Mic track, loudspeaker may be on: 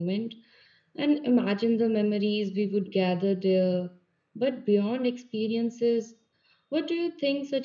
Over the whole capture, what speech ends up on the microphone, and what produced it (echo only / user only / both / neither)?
echo only